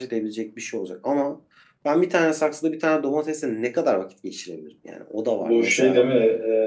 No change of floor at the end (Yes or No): No